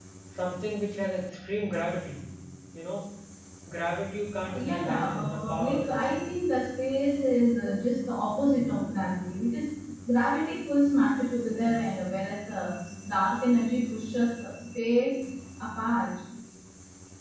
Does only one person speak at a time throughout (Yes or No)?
No